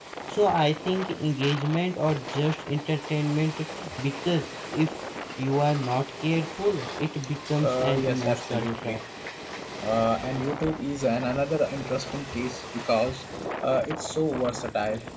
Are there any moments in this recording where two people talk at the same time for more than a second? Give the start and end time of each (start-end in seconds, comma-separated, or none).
7.6-9.0